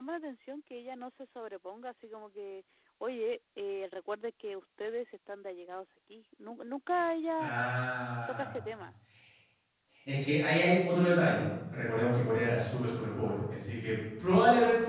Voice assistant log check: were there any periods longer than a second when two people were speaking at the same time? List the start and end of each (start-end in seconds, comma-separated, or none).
none